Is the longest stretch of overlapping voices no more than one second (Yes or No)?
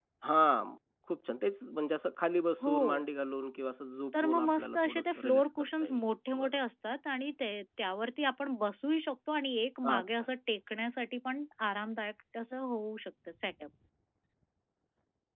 No